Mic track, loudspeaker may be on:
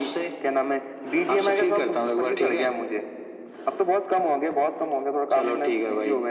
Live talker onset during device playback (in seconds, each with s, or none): none